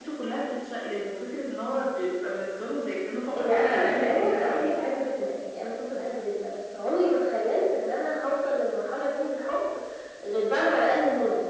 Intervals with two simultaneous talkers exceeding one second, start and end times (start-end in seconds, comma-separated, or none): 3.3-4.8